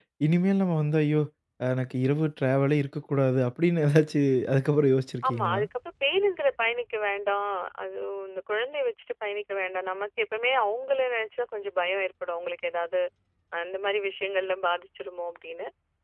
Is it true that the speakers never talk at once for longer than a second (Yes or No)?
Yes